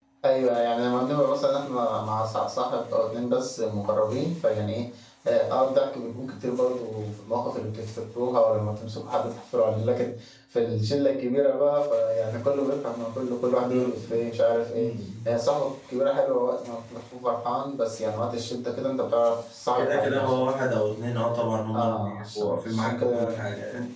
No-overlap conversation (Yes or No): No